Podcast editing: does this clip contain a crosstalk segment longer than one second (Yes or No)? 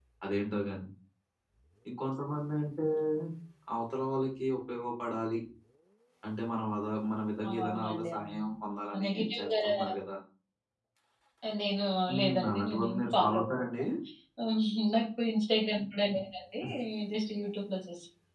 Yes